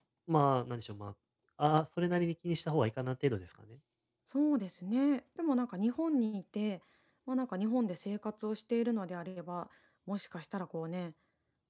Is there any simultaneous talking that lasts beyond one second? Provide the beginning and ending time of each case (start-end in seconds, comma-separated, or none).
none